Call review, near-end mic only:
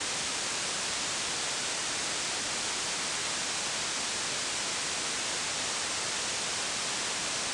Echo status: none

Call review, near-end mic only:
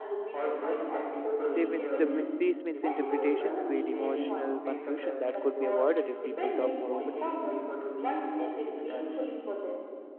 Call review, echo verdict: present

